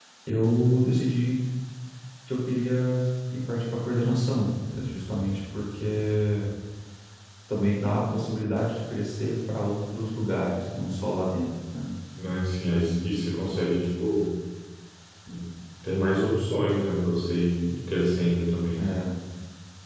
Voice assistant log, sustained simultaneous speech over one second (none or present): none